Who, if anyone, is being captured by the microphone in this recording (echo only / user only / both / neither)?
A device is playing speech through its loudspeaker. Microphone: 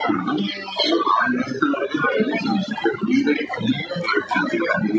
echo only